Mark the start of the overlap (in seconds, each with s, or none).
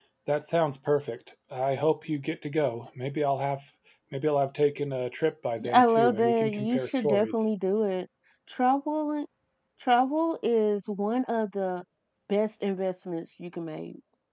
5.6 s